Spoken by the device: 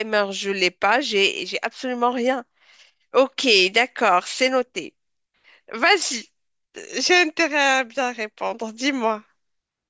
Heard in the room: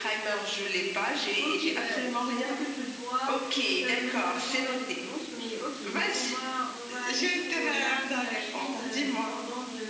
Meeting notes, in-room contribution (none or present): present